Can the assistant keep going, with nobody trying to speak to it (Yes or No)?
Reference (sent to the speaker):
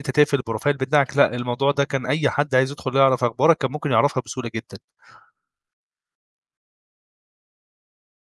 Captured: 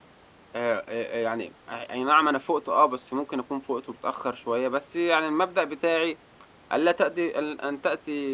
No